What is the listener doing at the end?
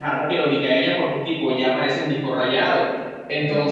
listening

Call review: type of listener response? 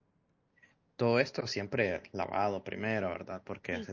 listening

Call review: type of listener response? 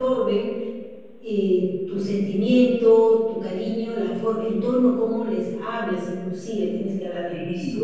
taking over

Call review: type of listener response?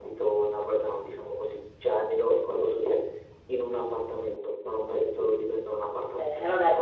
taking over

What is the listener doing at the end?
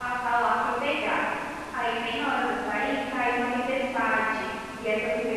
listening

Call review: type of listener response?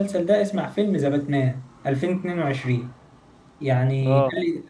listening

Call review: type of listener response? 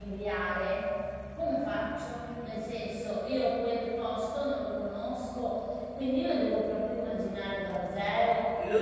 taking over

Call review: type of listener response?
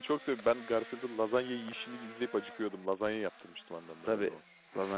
taking over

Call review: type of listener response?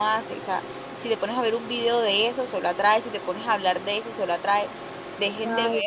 listening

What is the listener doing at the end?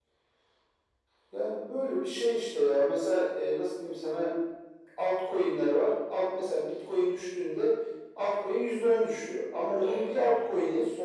listening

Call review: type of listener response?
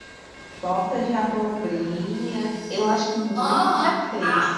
taking over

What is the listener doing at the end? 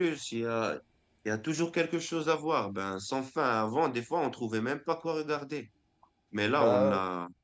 listening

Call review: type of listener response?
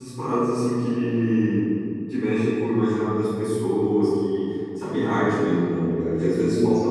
listening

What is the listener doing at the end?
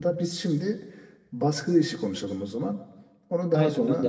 taking over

